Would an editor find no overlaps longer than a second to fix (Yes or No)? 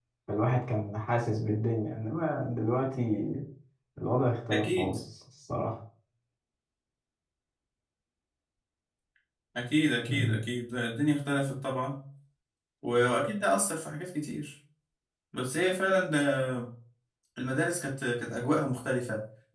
Yes